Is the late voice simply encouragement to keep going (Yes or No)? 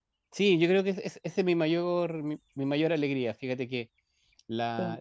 Yes